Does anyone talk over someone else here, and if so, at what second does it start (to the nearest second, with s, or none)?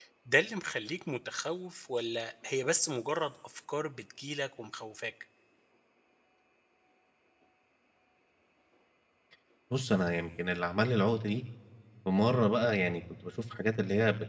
none